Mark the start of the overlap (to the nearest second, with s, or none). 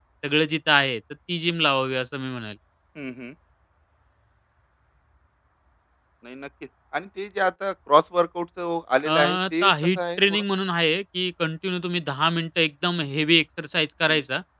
9 s